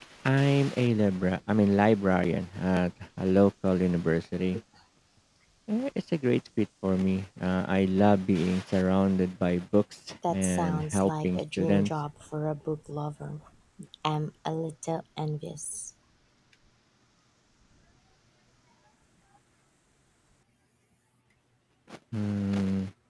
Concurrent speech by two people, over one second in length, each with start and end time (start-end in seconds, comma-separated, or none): 10.3-11.9